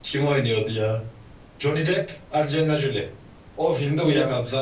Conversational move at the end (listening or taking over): listening